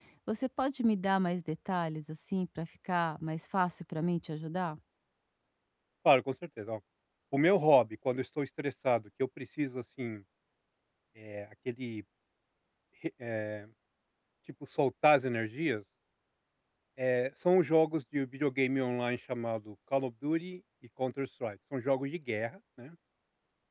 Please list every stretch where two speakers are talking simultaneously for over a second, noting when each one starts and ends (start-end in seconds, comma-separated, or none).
none